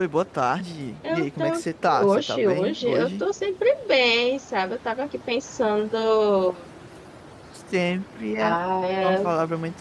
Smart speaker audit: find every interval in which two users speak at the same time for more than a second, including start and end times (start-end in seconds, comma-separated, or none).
2.0-3.2